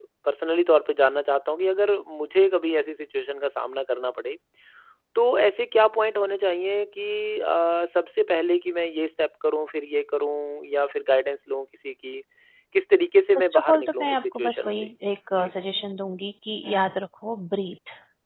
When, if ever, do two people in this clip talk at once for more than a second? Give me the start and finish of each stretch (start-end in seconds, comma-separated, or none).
13.3-14.9